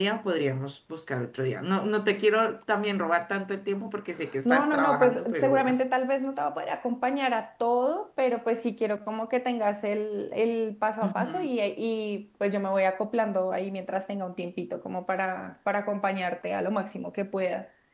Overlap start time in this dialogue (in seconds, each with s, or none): 4.5 s